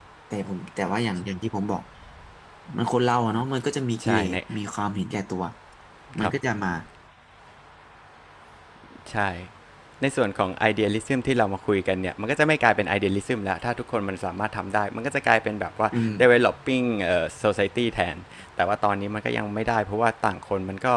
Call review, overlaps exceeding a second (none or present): none